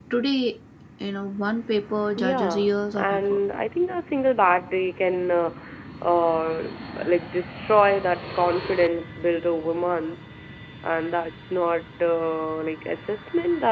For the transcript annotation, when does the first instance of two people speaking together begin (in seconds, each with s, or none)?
2.2 s